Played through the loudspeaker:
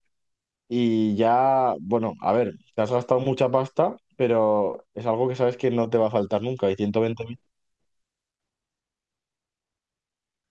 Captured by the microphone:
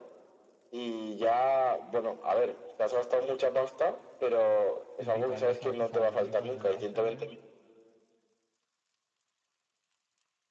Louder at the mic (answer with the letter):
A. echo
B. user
A